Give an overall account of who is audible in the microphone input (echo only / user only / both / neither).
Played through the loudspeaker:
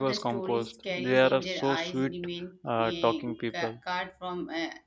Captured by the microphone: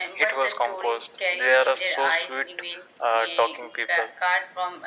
echo only